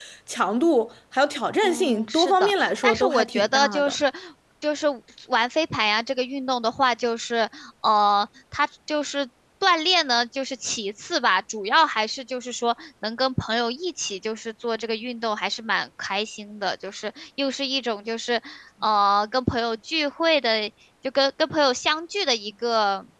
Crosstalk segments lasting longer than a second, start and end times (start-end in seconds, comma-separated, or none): 1.6-4.0